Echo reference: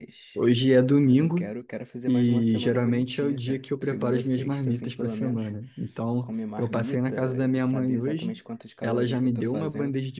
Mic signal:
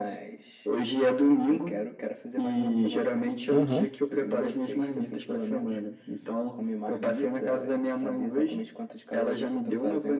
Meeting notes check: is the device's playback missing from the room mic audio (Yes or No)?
No